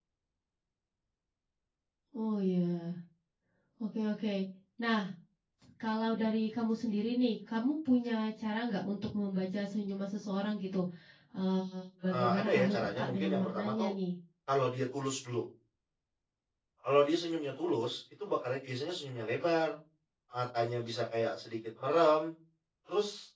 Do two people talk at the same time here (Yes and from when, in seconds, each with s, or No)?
Yes, from 12.1 s